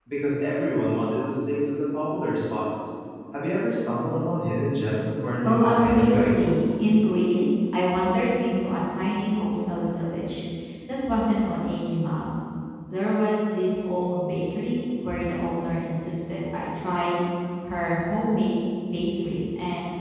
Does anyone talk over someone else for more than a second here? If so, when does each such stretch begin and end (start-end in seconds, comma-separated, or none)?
5.4-6.7